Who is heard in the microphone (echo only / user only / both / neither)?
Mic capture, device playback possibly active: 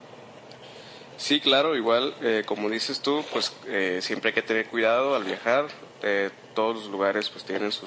echo only